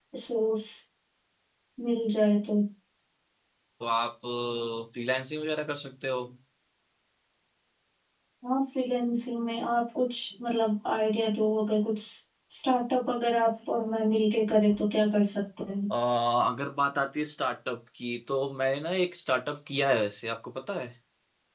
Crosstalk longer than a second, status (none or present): none